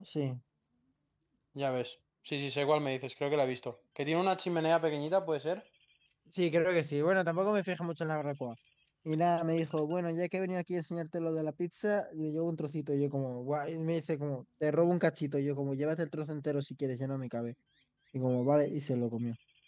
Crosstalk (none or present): none